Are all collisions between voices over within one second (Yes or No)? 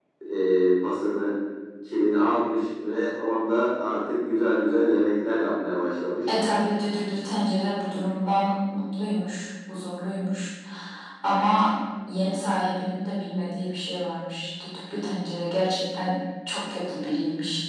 Yes